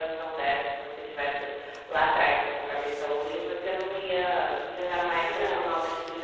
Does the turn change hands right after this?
No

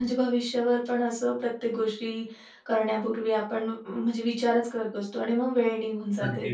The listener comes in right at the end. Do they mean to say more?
Yes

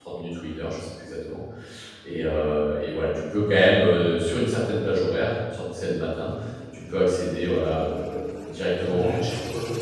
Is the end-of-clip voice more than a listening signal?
Yes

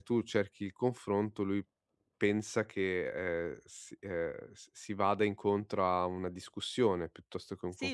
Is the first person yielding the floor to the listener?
Yes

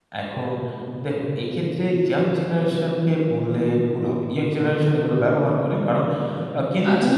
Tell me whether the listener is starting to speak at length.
No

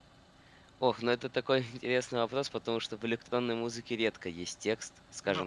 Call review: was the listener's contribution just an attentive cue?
Yes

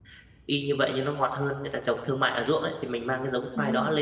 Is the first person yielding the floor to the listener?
No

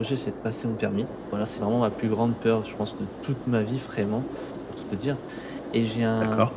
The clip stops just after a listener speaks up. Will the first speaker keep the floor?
Yes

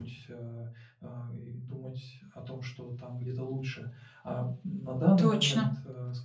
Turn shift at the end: No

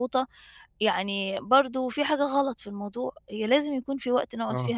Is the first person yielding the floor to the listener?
No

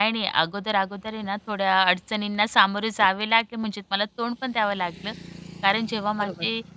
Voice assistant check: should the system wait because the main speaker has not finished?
Yes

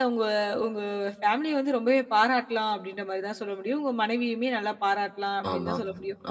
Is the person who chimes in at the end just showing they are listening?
Yes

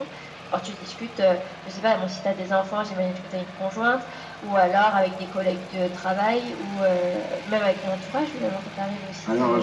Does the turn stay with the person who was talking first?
No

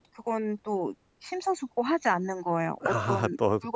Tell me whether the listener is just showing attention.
No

